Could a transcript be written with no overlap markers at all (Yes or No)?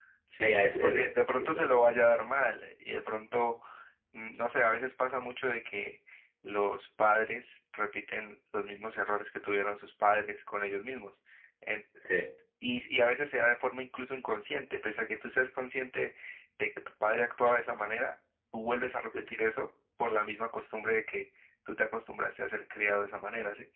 No